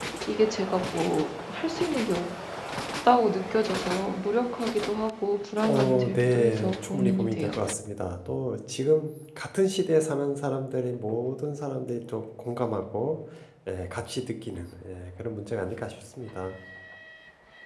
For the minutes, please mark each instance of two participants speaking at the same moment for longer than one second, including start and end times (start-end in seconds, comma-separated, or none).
5.6-7.5